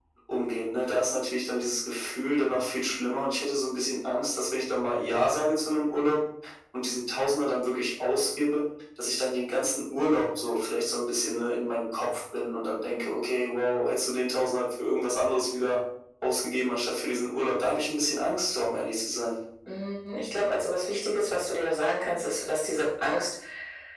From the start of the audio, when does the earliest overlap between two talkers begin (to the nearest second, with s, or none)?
none